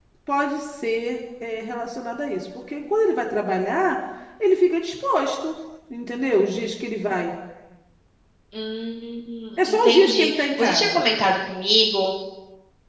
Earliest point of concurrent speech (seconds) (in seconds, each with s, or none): 9.7 s